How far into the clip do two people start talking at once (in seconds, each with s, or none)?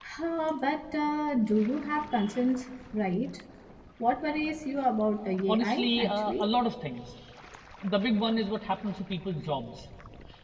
5.2 s